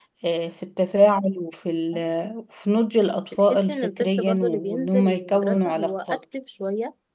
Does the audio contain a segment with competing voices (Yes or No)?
Yes